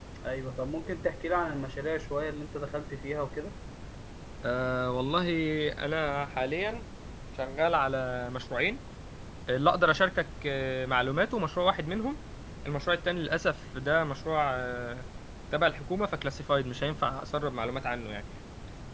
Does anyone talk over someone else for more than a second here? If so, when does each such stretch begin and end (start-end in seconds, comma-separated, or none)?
none